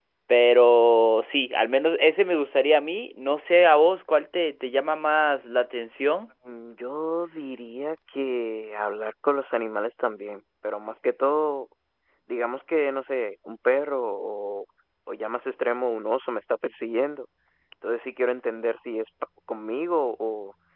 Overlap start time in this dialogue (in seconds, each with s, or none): none